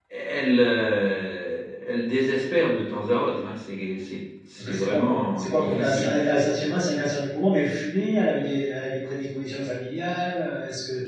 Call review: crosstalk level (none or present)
present